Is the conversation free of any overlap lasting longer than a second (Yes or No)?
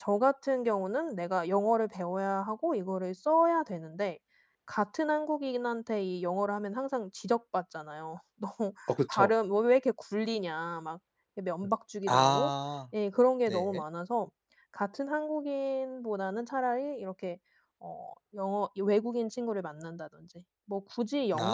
Yes